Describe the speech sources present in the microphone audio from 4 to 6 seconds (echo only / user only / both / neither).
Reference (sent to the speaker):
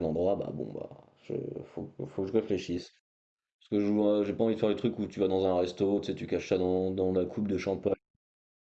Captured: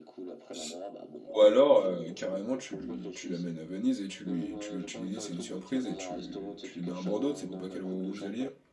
both